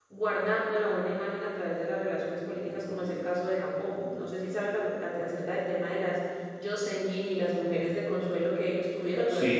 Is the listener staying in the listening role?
No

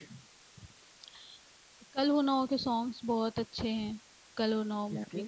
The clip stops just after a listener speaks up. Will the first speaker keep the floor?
Yes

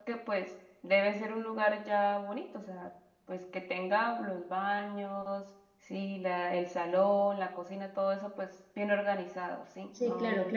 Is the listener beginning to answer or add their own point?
Yes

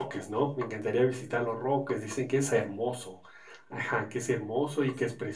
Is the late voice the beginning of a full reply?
No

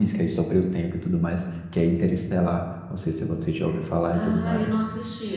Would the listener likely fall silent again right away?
No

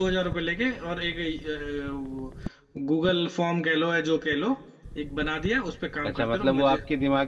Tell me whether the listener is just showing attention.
No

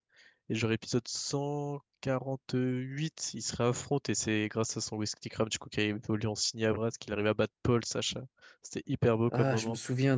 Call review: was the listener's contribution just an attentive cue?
No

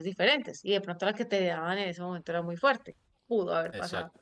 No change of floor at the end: No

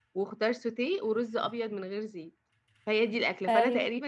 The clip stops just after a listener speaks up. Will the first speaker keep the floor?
No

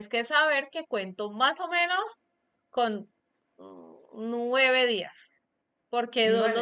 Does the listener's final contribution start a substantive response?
No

